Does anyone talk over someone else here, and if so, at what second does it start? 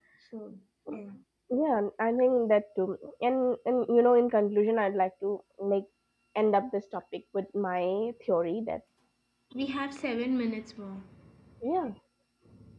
none

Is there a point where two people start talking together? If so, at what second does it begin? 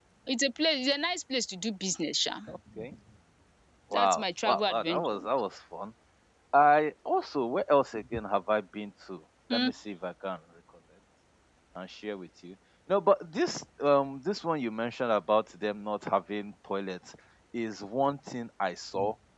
3.9 s

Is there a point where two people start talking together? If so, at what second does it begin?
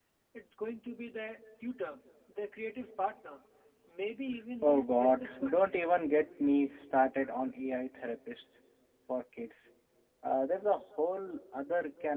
4.6 s

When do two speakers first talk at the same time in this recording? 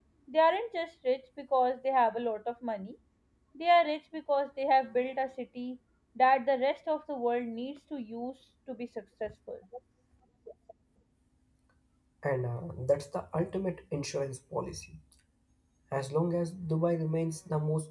none

